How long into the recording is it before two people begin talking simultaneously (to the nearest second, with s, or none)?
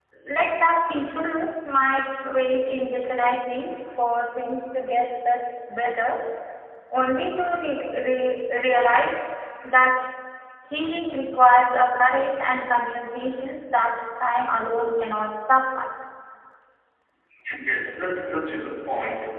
none